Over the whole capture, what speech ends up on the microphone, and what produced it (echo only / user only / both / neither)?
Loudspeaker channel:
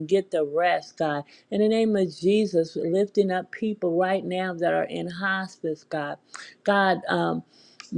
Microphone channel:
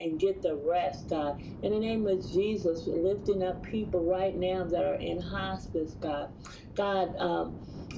echo only